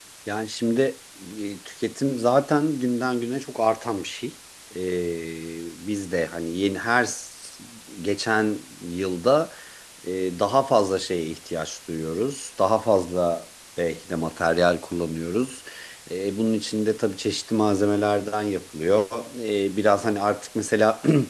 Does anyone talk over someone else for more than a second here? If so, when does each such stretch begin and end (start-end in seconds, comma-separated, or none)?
none